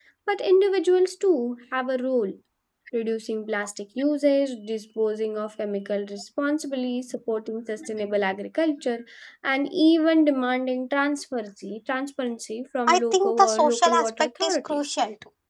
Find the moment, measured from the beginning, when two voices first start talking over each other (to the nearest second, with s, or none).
13 s